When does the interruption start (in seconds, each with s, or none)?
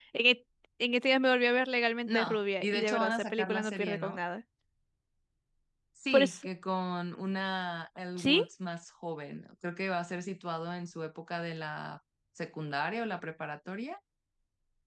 2.1 s